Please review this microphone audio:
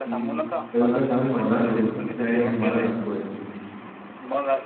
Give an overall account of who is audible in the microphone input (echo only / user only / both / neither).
both